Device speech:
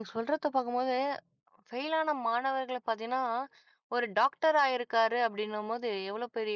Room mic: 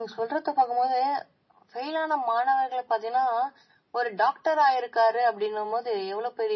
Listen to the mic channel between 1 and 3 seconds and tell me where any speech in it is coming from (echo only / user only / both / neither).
echo only